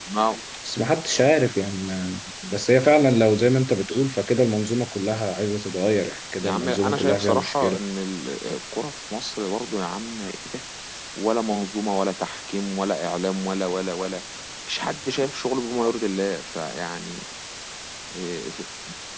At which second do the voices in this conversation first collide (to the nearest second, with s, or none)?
6 s